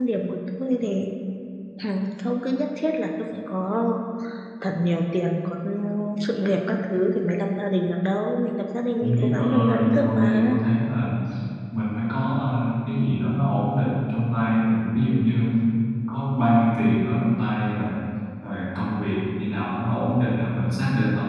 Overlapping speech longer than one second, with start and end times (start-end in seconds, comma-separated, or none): 9.0-10.6